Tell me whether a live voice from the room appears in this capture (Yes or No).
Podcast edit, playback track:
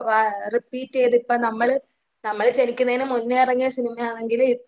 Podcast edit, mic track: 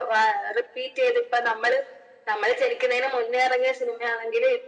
No